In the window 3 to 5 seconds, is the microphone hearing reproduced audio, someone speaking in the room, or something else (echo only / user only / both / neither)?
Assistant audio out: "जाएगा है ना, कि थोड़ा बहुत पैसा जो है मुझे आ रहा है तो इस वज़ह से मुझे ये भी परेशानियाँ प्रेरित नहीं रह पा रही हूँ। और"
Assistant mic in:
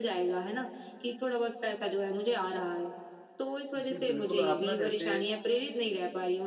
both